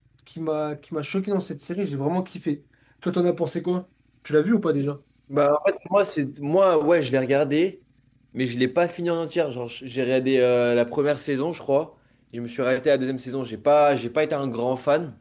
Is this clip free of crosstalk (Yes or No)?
Yes